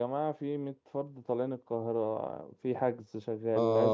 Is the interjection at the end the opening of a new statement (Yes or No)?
Yes